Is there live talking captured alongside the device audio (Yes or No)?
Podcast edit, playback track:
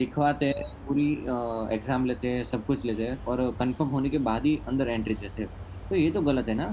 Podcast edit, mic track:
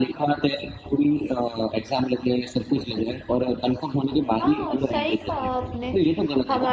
Yes